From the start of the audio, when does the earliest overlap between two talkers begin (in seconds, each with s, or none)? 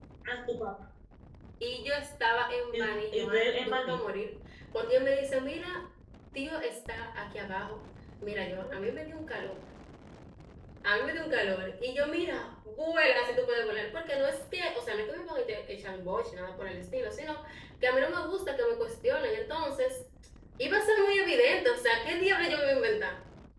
2.7 s